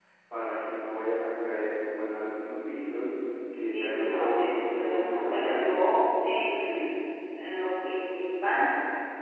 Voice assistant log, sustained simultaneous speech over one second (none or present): present